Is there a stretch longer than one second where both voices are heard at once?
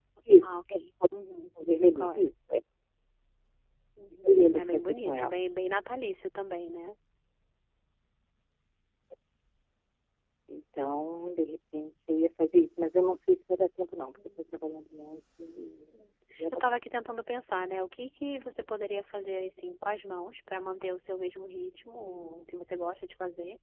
Yes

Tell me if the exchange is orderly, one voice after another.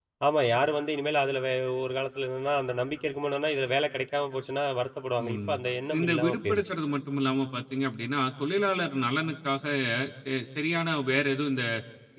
No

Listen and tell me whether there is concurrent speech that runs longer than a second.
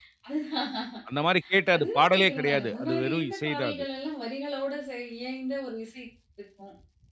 Yes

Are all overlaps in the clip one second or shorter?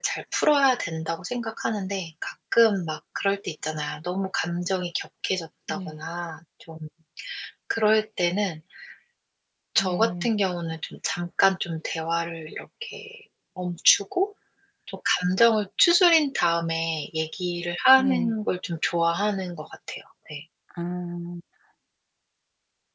Yes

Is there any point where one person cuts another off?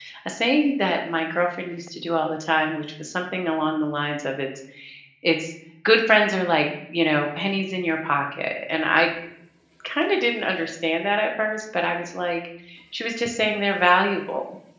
No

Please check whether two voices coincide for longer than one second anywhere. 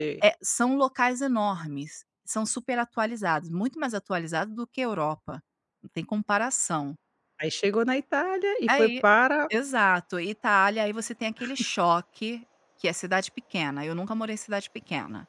No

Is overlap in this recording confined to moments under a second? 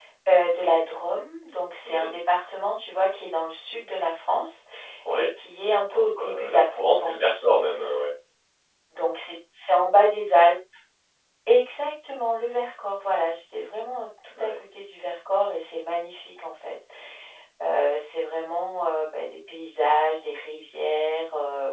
No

